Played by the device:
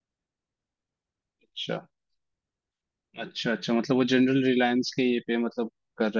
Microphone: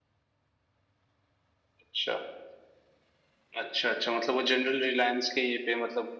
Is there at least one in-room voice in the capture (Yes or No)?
No